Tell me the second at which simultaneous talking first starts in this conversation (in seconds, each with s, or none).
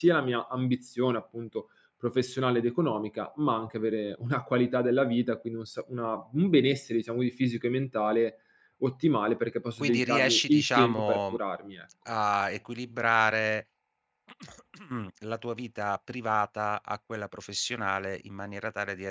9.8 s